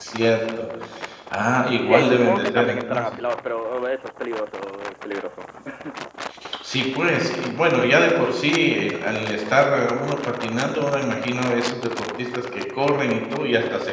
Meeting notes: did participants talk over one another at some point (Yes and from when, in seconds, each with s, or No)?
Yes, from 1.8 s